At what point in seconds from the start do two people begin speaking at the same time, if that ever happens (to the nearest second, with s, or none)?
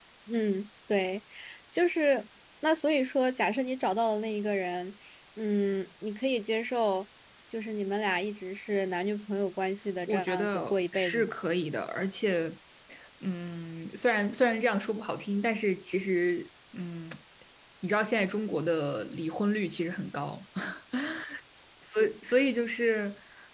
10 s